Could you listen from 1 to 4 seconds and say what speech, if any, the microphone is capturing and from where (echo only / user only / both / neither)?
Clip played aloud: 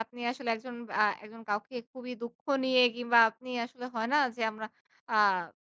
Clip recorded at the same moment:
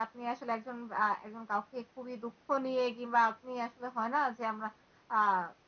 echo only